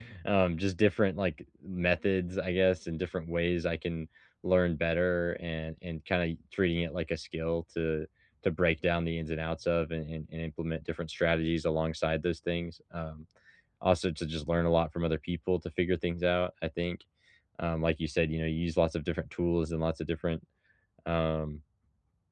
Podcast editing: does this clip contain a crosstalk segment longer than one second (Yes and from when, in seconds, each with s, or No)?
No